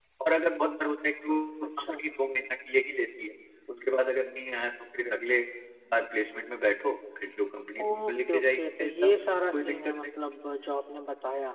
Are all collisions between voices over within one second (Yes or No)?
No